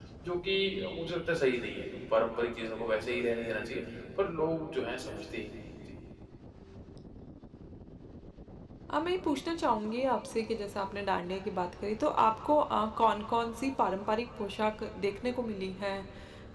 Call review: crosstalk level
none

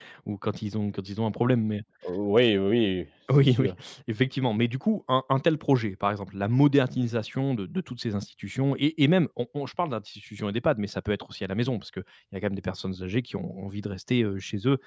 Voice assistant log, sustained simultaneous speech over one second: none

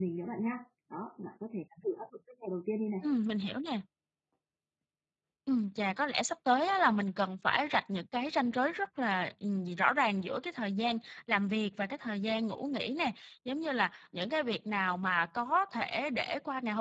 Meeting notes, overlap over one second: none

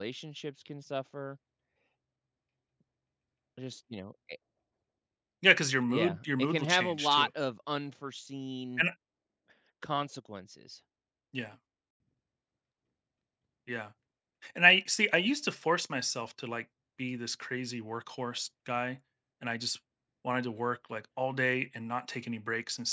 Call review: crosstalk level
present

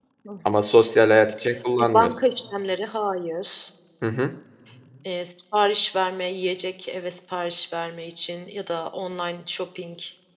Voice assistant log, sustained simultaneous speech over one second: none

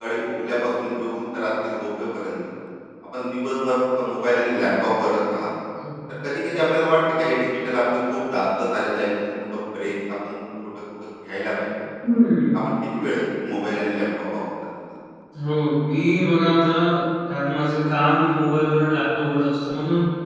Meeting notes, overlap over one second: none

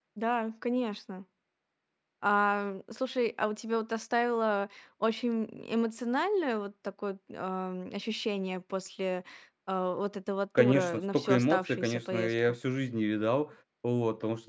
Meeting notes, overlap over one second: present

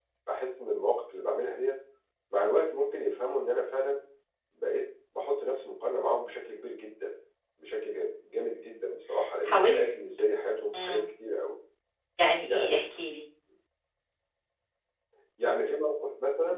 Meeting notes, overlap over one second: none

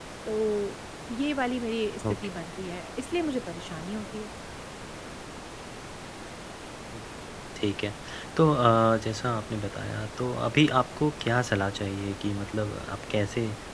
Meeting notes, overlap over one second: none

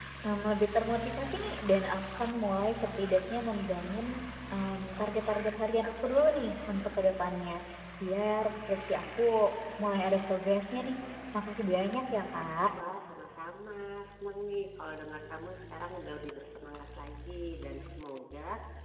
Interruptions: none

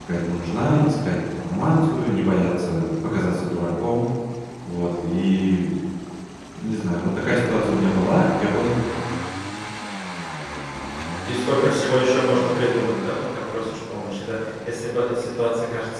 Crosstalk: none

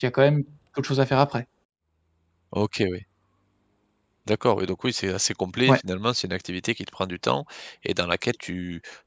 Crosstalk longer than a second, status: none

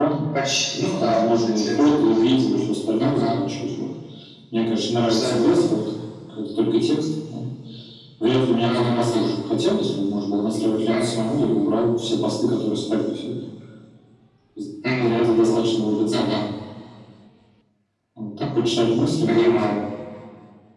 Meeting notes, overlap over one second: present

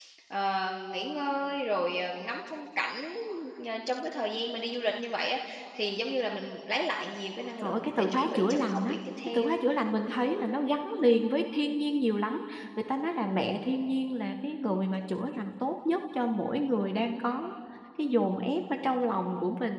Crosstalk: present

